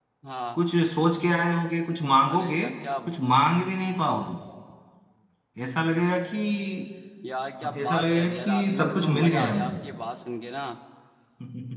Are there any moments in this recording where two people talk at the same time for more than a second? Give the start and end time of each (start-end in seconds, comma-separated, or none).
7.6-9.7